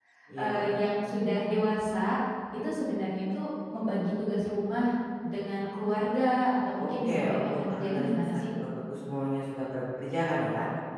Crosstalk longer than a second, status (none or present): present